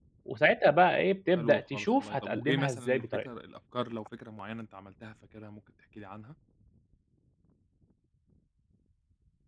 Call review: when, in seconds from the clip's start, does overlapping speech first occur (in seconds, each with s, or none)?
1.4 s